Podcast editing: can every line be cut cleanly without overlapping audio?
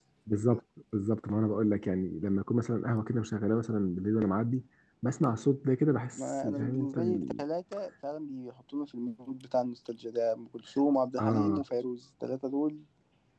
No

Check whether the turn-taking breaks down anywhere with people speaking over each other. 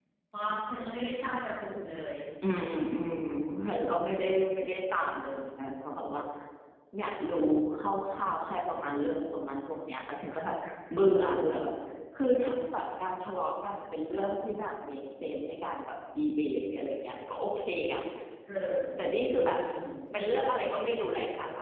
No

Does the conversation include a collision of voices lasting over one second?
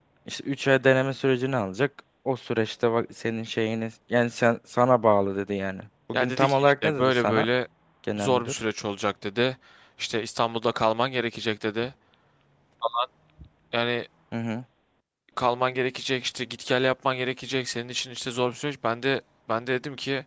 Yes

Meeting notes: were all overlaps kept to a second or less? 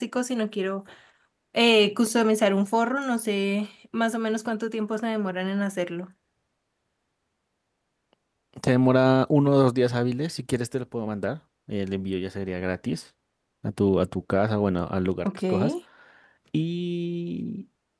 Yes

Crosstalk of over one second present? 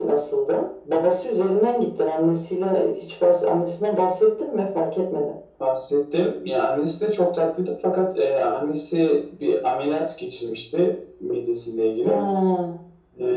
No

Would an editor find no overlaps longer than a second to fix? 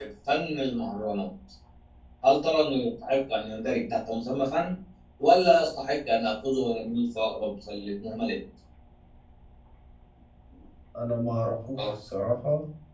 Yes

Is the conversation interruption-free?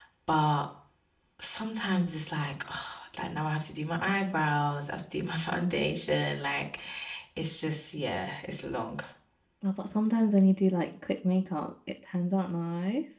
Yes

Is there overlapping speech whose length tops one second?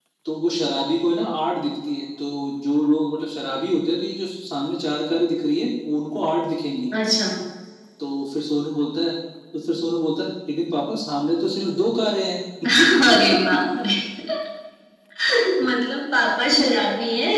No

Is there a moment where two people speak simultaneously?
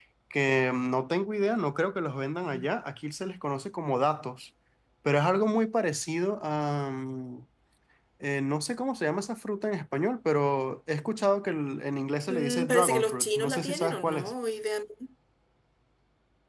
Yes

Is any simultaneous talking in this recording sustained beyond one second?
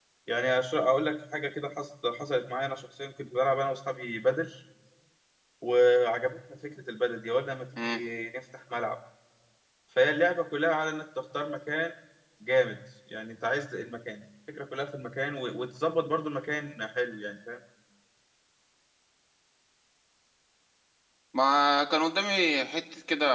No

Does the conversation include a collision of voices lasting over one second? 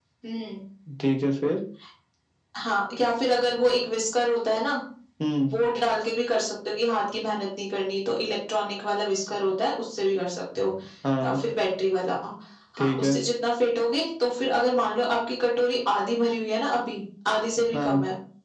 No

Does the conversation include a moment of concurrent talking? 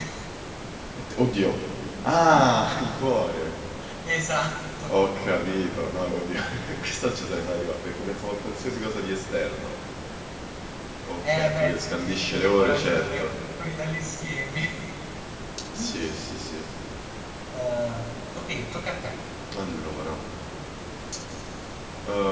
Yes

